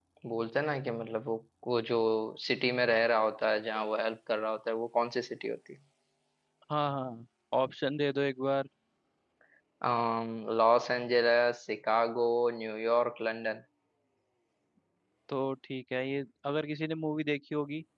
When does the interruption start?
none

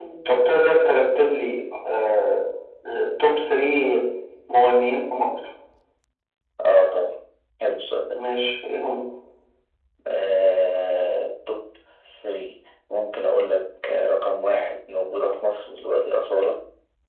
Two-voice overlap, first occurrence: none

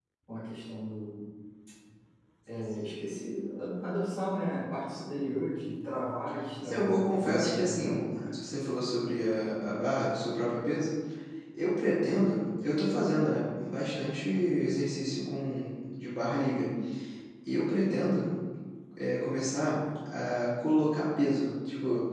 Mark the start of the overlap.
6.6 s

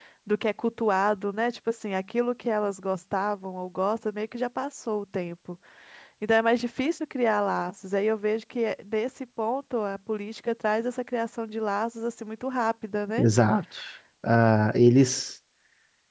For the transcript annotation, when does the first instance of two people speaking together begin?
none

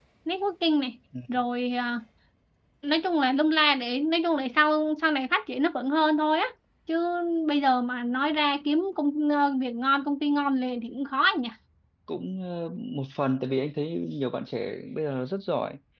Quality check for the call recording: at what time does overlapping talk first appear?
none

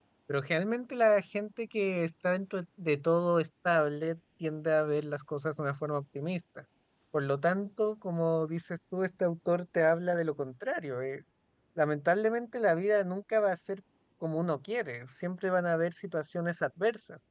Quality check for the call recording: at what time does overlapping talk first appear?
none

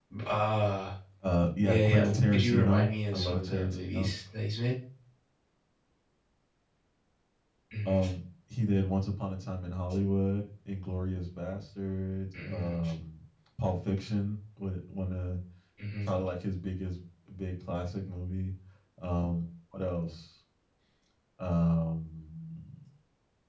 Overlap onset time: 1.6 s

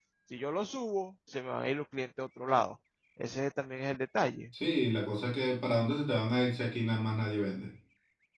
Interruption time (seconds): none

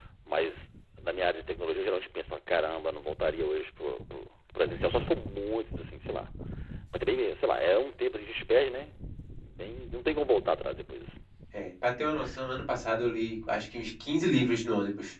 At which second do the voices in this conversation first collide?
none

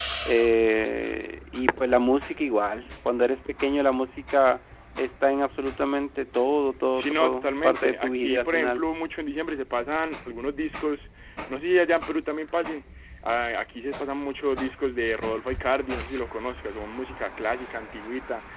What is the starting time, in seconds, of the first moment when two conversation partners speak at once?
7.0 s

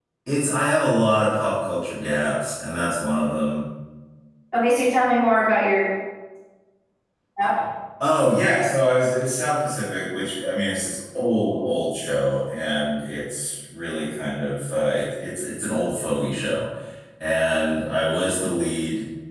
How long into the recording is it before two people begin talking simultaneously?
none

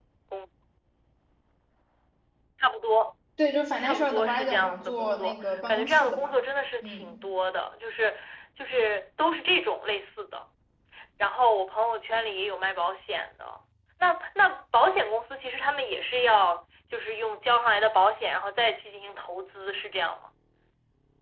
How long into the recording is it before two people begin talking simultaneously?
3.8 s

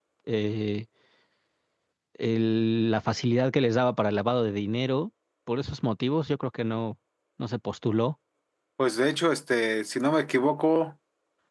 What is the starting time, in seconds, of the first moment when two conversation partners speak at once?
none

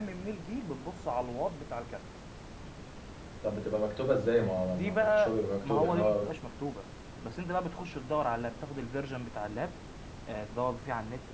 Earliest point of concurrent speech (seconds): 4.5 s

